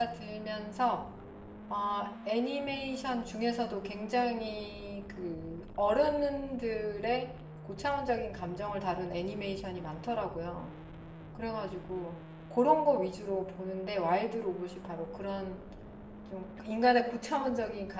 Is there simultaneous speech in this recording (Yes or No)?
No